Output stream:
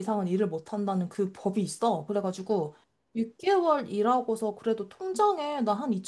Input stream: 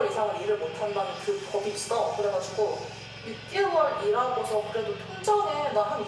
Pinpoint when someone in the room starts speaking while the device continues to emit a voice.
none

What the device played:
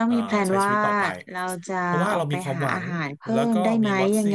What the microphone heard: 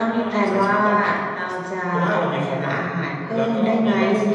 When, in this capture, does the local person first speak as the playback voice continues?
none

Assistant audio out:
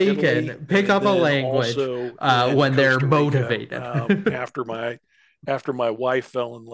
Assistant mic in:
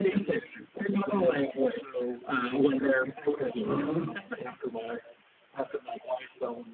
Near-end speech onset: 4 s

